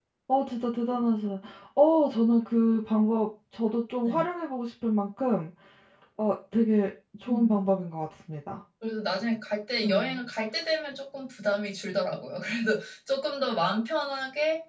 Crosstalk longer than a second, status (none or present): none